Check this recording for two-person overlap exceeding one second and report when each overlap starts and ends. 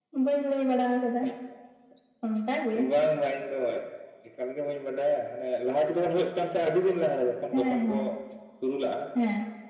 none

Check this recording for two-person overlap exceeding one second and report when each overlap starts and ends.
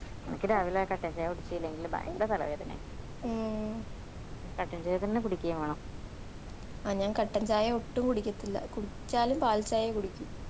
none

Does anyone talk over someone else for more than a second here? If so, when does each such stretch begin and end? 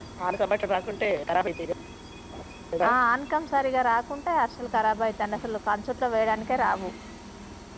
none

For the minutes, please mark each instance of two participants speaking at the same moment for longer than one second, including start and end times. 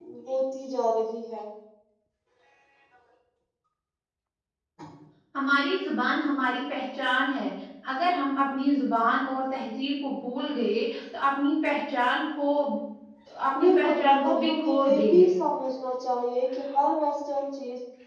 13.6-15.3

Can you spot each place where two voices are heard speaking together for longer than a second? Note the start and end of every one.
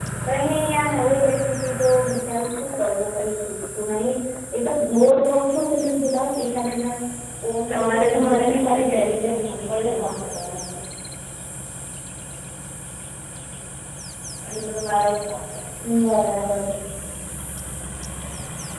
7.7-10.0

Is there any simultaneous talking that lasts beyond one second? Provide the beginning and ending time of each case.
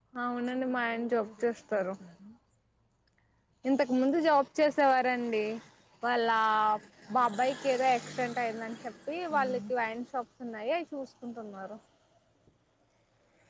0.5-1.8

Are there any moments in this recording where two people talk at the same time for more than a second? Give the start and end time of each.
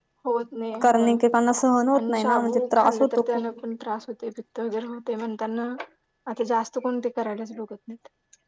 2.0-3.5

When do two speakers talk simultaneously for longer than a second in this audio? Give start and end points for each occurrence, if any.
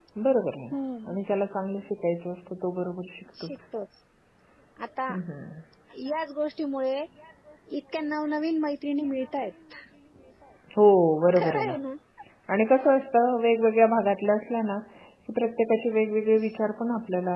none

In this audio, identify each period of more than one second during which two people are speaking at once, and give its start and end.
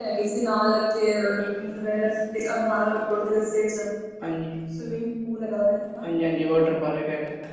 none

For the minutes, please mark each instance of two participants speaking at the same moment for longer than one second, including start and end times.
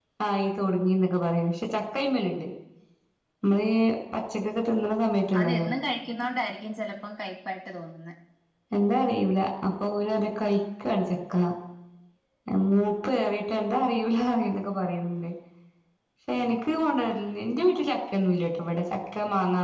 none

